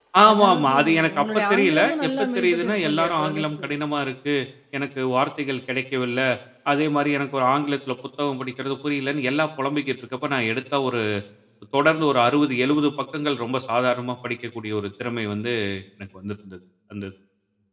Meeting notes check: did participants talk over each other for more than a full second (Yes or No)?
Yes